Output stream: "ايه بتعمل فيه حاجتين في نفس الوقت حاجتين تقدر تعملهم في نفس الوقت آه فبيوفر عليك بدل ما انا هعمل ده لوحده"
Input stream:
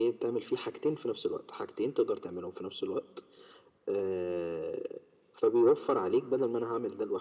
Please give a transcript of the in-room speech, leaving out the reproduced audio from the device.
none

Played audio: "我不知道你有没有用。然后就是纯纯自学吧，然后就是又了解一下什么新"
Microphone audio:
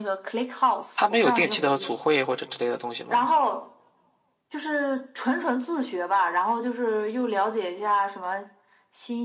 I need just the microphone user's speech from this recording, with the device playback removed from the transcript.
他没有定期的组会或者之类的东西吗？

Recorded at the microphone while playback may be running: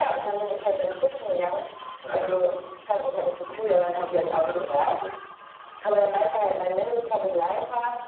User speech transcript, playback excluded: none

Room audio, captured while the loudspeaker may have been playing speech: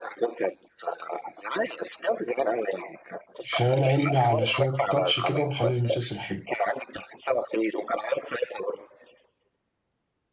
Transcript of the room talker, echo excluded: خيال علمي على شويه تاتش كده مخلي المسلسل حلو

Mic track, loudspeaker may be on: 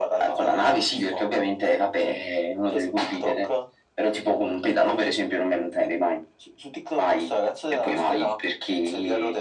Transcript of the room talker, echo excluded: none

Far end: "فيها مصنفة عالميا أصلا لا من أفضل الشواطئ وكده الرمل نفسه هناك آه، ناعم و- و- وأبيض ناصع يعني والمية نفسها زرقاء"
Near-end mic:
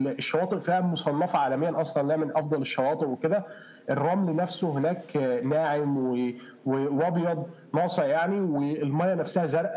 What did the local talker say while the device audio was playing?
none

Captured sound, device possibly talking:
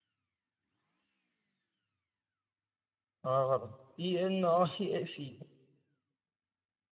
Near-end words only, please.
آه غلط إي إن آه إي سي

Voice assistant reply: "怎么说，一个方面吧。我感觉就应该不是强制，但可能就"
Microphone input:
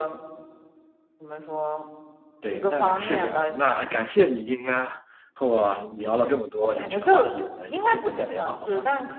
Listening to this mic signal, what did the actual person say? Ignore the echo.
对，那是这样。那感谢你今天和我聊了这么多有趣的话题，我们有机会再聊好吗？

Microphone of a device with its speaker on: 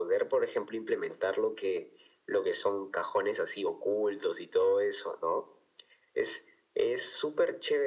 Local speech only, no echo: none

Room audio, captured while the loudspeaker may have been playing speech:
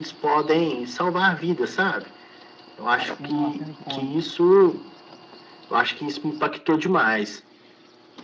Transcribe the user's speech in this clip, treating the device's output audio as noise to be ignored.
uma cena, uma cena icônica.

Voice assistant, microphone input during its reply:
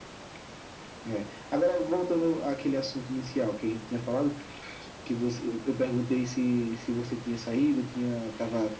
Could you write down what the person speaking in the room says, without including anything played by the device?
none

